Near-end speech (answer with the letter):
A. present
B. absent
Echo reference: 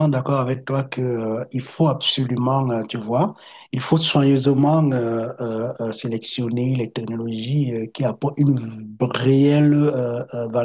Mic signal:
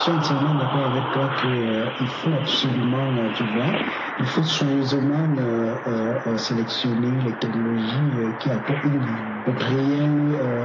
B